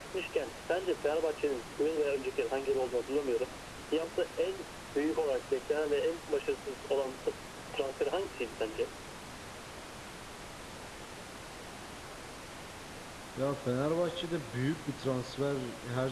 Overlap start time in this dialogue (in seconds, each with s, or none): none